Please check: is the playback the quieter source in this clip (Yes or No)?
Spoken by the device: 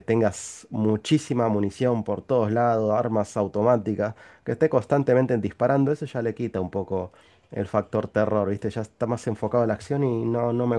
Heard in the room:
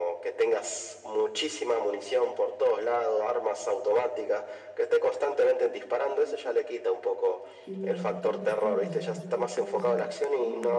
No